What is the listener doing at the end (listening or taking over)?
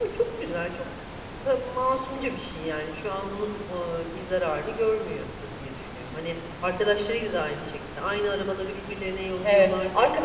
taking over